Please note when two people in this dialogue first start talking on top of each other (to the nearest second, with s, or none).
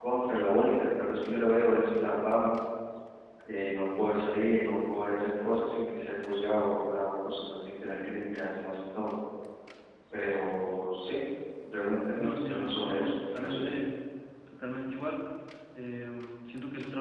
12 s